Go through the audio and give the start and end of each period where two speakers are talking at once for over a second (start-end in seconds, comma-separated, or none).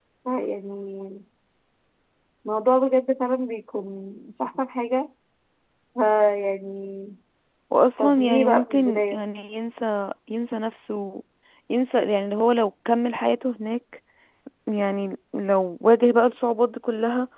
8.0-9.2